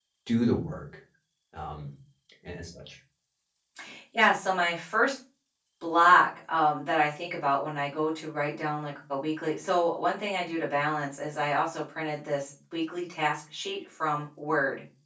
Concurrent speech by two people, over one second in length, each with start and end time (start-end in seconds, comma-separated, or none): none